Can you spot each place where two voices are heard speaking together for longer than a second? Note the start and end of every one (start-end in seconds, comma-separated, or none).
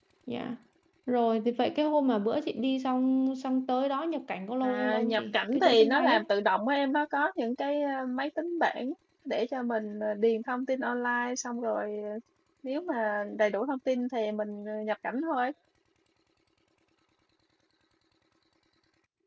4.6-6.2